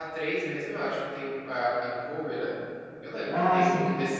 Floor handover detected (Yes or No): No